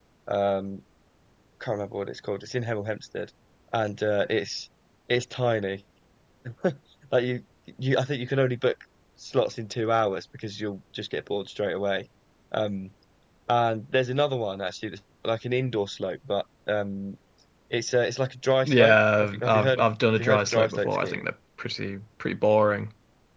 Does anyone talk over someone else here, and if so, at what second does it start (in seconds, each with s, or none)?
18.6 s